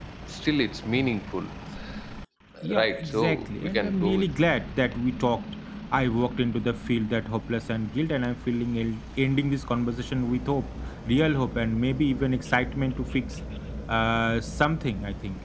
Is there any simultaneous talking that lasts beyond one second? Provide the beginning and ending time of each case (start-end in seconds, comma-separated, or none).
2.8-4.3